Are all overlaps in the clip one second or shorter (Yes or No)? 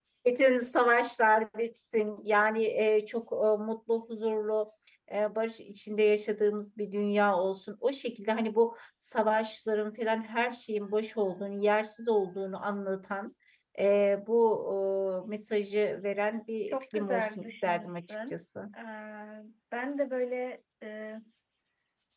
No